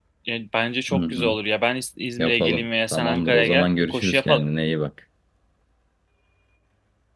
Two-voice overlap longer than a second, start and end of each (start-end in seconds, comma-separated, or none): 2.2-4.4